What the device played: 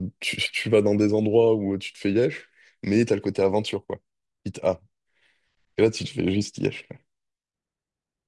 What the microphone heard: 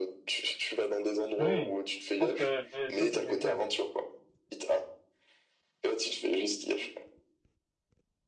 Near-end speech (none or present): present